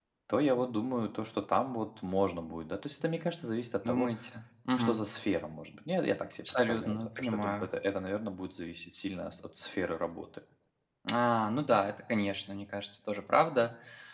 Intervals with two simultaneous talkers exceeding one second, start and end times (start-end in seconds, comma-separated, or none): 6.5-7.7